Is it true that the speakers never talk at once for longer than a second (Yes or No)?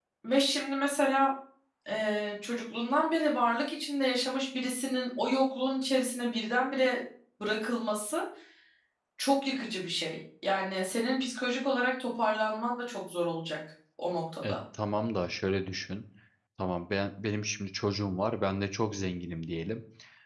Yes